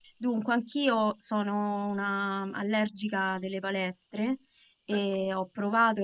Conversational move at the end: listening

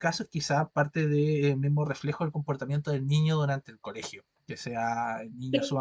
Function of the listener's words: listening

